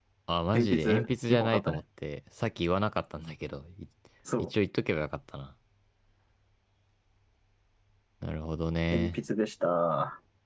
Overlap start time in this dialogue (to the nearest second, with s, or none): 1 s